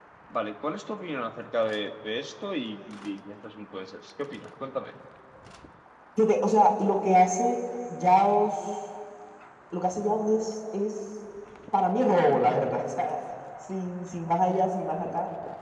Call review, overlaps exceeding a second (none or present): none